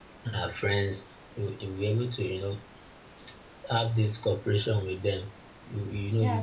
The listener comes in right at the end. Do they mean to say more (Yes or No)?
Yes